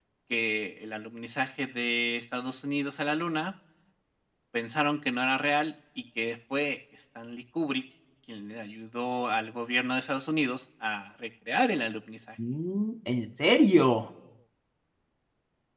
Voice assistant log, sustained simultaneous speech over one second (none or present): none